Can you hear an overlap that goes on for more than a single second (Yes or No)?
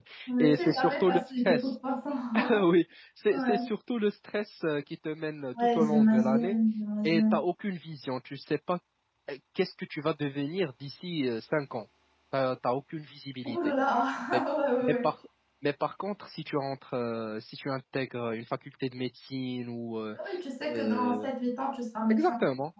Yes